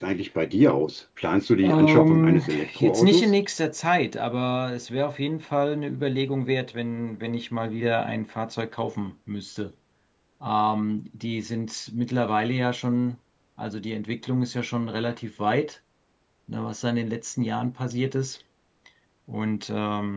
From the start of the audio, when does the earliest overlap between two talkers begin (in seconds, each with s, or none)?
1.6 s